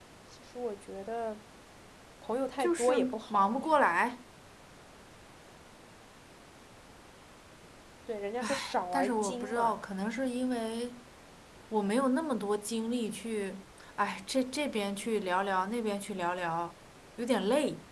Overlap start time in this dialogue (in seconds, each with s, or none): 2.6 s